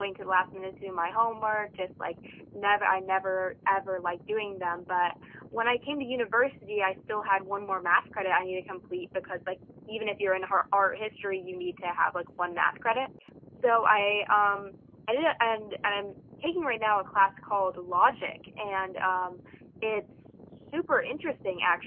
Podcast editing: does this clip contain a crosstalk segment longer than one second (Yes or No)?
No